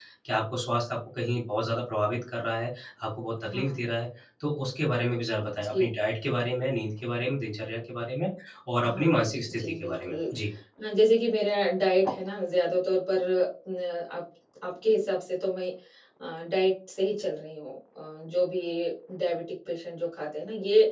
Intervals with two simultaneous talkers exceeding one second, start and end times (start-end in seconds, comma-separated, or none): 8.9-10.2